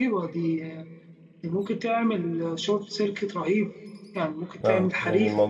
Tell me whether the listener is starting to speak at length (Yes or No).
Yes